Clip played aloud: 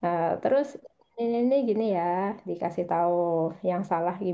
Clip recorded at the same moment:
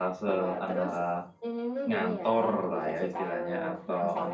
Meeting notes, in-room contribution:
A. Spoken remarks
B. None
A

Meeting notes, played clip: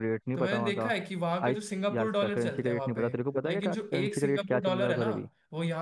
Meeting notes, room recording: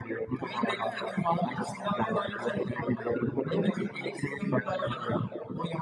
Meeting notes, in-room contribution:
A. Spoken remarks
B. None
B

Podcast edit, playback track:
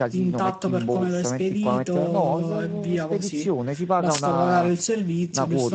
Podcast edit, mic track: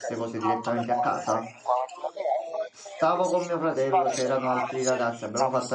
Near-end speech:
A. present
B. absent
A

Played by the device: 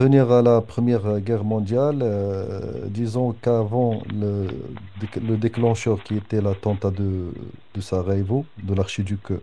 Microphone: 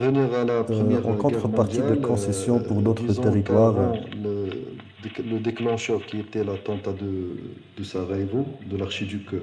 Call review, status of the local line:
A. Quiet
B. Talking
B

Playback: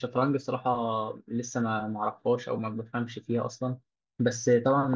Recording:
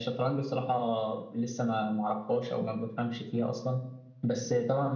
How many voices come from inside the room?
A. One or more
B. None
B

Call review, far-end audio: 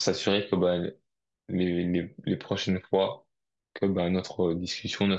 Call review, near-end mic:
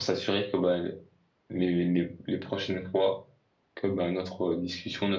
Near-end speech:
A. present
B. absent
B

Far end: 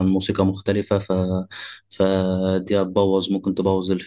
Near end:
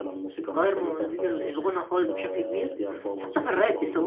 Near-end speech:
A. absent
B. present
B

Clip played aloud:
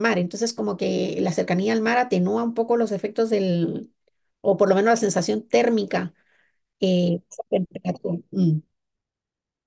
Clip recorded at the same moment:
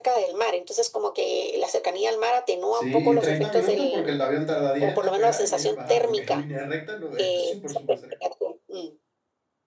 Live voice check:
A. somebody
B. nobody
A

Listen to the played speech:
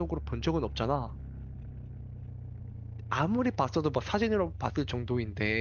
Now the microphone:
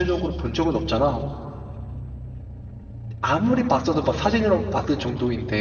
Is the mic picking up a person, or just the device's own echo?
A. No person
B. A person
A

